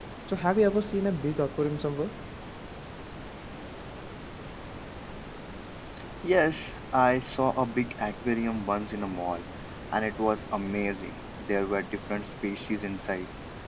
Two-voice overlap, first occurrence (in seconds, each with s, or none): none